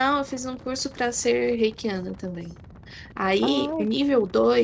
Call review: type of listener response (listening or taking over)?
listening